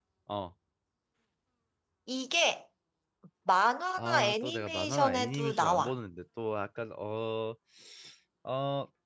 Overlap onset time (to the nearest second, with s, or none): 4 s